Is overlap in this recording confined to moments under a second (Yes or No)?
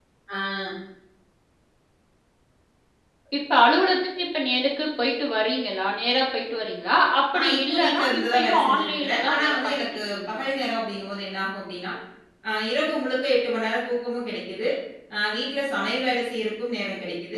No